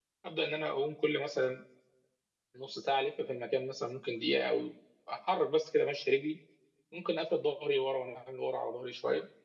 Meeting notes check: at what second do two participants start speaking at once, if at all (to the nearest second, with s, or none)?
none